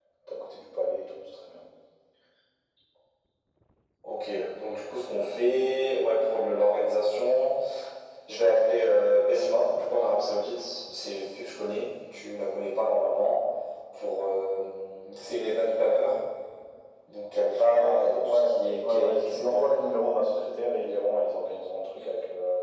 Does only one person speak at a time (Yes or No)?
No